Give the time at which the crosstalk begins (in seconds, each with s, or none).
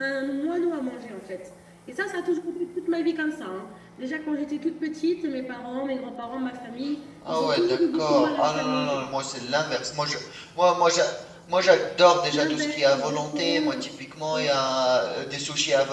7.3 s